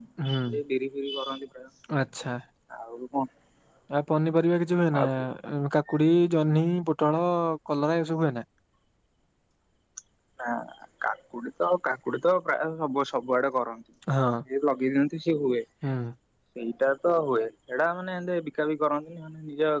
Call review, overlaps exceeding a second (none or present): none